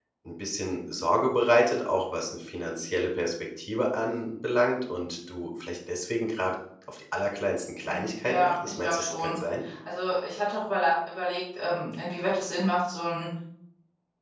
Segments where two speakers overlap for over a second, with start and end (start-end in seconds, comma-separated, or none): 7.8-9.3